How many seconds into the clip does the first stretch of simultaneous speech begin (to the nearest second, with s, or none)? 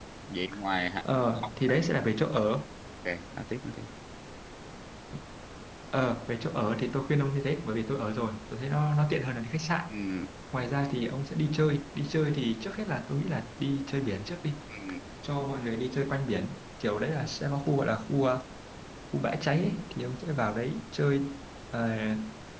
none